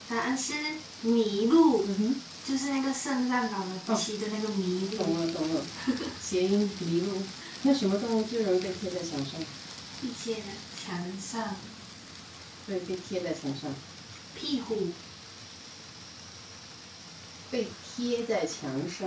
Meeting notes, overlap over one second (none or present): none